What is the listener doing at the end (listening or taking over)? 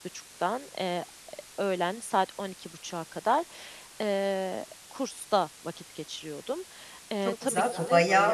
taking over